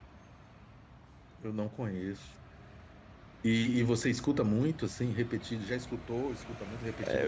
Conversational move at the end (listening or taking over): taking over